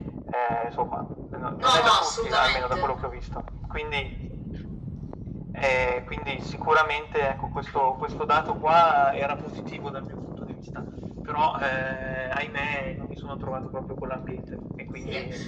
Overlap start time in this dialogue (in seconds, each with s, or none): 1.6 s